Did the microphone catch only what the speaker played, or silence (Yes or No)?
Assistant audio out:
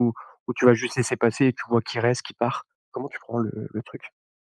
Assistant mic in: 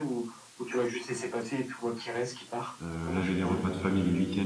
No